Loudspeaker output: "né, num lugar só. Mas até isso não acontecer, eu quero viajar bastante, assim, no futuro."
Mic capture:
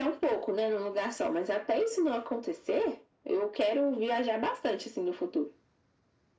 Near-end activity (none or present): none